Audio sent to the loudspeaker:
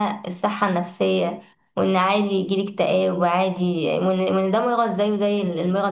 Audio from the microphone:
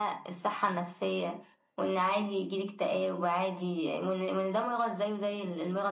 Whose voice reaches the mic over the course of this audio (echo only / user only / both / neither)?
echo only